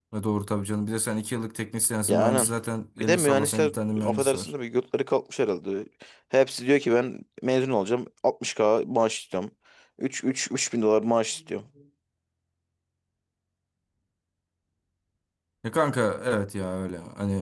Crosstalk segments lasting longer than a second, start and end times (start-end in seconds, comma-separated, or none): 3.0-4.5